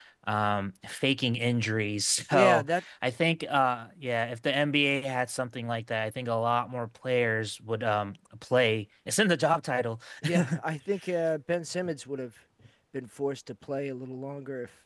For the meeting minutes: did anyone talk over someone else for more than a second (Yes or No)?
No